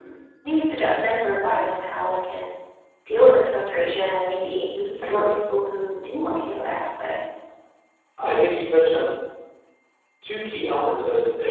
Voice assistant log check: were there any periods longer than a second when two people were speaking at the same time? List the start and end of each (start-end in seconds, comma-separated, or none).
none